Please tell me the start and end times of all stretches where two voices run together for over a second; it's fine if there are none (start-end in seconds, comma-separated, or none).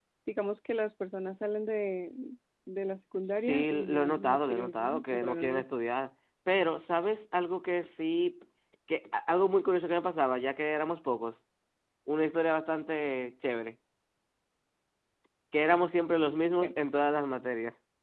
3.5-5.6